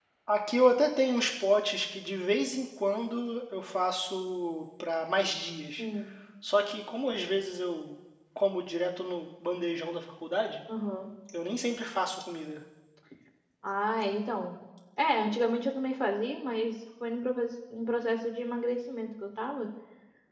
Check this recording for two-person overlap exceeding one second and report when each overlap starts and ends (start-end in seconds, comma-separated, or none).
none